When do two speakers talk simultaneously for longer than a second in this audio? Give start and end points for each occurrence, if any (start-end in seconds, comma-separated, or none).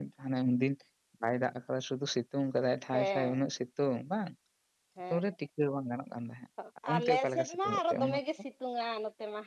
6.9-8.2